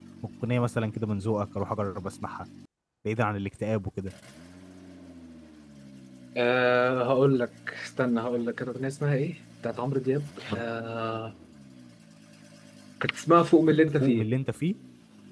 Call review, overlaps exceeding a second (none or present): none